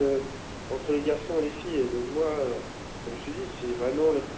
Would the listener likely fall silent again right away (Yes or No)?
Yes